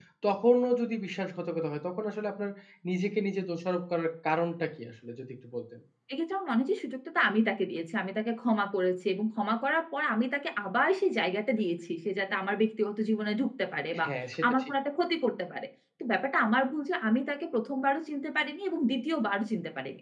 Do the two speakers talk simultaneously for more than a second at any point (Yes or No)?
No